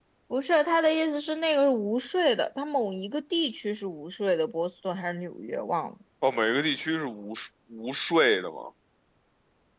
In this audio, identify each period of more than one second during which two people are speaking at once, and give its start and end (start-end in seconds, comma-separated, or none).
none